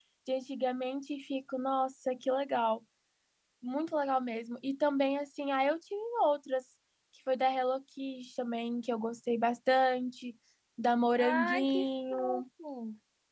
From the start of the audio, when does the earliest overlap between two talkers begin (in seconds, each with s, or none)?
11.2 s